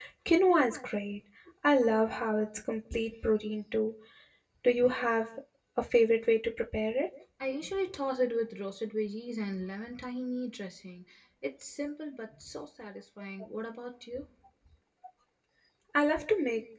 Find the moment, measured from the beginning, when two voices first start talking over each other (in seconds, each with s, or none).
none